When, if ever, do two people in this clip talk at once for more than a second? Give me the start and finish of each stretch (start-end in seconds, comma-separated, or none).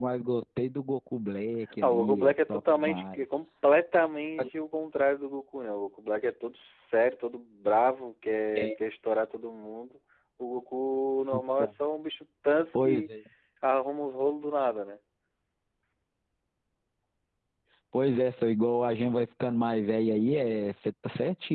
1.8-3.2